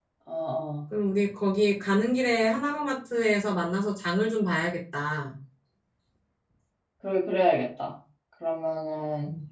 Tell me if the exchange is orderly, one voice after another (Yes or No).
Yes